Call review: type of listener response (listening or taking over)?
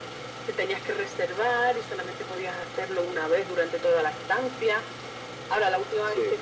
listening